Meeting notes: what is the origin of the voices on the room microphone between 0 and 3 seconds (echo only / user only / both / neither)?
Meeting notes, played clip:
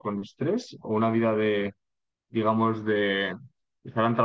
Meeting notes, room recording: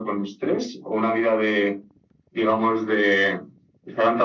echo only